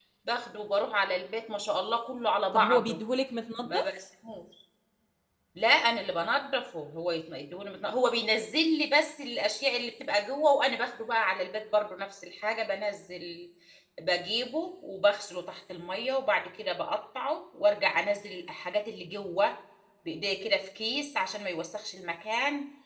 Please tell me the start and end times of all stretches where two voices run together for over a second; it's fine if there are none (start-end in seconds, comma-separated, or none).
none